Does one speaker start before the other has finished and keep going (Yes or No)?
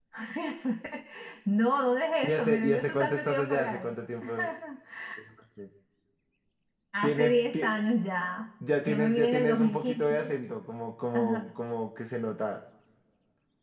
Yes